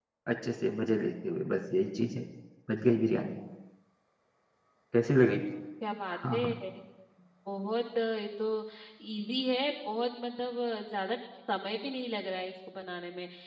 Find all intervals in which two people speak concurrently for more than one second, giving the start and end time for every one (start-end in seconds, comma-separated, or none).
none